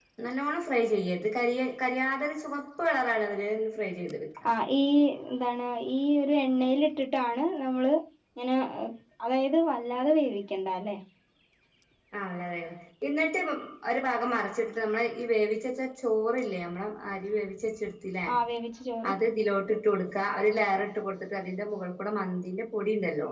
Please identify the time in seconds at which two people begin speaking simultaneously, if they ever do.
none

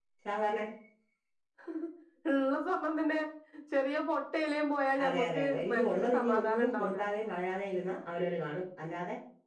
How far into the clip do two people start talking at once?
5.0 s

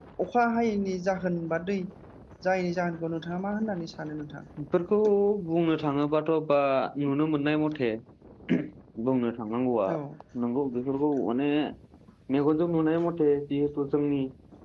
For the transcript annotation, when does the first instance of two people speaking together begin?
none

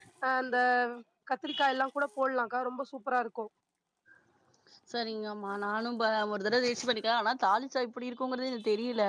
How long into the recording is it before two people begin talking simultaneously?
none

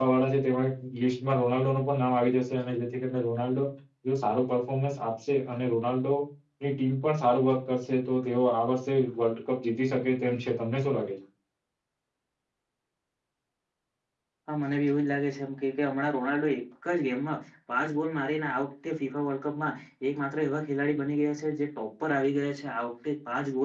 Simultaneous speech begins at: none

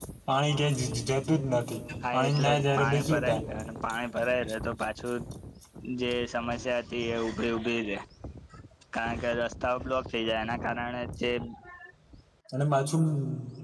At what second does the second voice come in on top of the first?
2.0 s

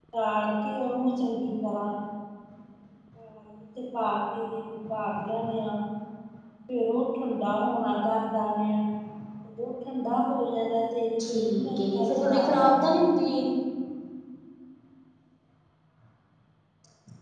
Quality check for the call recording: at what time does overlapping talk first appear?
11.2 s

